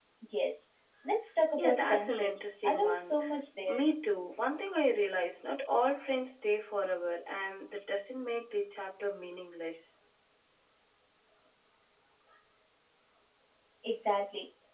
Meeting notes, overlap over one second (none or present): present